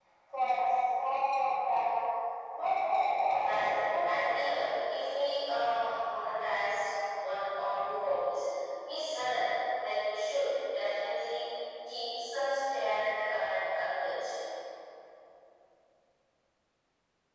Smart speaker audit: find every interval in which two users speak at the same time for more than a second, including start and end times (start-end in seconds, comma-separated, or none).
3.4-4.7